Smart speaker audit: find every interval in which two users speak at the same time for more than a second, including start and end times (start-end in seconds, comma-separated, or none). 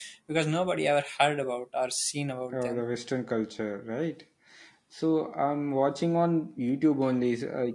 none